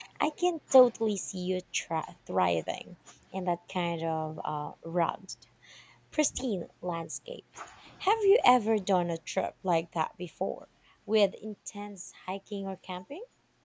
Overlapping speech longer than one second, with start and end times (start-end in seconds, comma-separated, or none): none